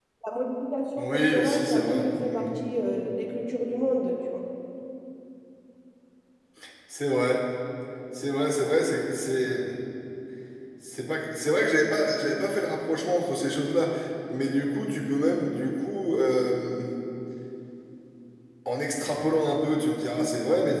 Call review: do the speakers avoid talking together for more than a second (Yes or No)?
No